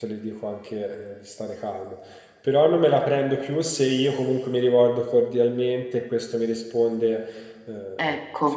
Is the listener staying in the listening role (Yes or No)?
Yes